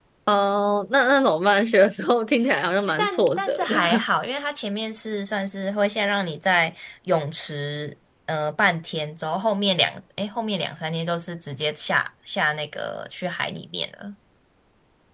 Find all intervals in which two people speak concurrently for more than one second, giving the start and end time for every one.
2.8-4.0

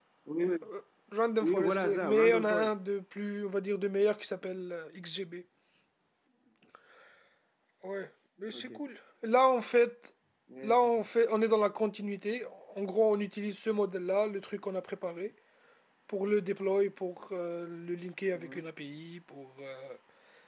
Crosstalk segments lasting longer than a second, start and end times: 1.4-2.7

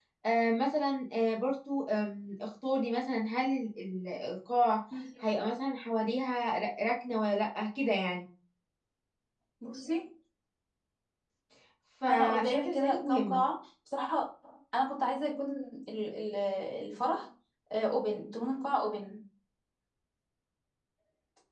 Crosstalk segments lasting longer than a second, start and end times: 12.1-13.4

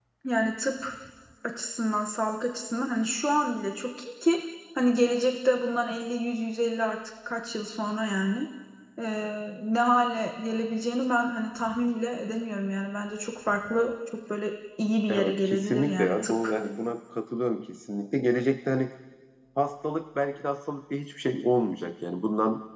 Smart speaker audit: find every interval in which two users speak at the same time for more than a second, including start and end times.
15.1-16.5

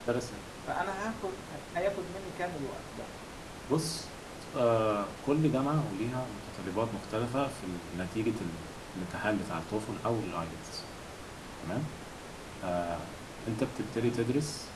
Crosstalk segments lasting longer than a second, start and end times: none

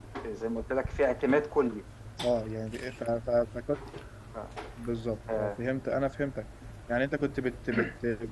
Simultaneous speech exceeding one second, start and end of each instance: none

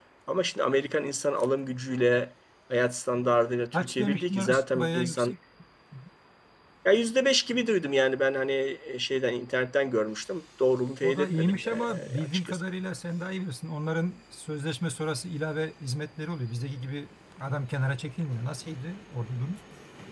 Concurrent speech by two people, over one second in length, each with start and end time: 3.7-5.3, 11.0-12.6

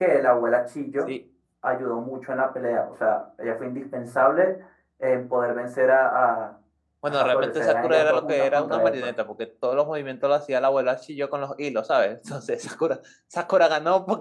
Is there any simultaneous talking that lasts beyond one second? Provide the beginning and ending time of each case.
7.1-9.1

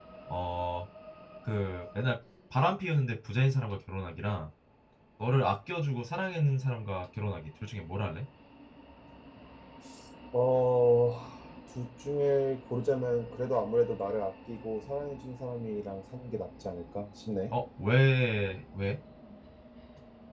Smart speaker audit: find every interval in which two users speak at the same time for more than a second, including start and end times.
none

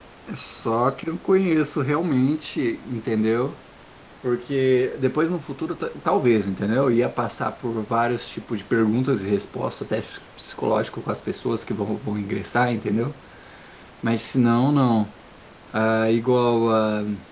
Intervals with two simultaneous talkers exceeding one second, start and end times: none

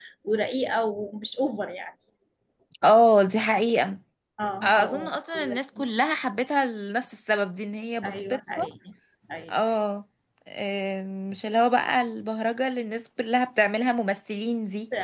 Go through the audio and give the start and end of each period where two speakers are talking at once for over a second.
4.6-5.9

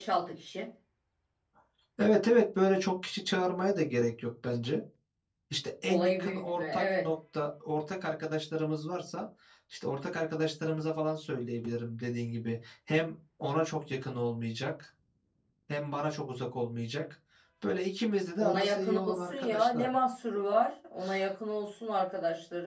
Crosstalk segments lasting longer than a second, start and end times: 5.9-7.1, 18.4-19.9

